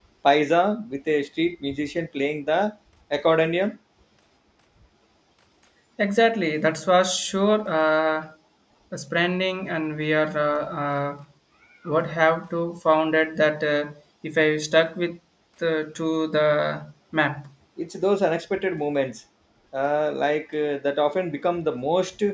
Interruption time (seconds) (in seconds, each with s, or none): none